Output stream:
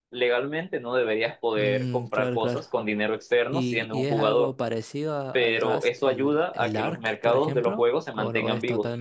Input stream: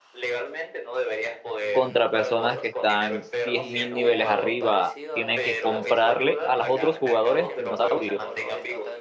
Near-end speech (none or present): present